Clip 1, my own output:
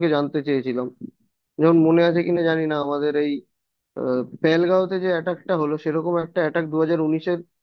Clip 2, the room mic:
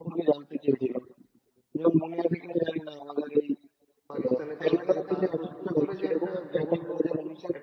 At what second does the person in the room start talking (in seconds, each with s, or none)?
4.1 s